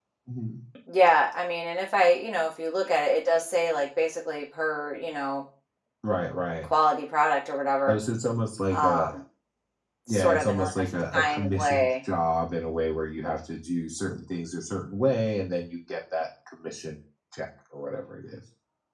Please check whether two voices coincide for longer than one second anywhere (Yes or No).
Yes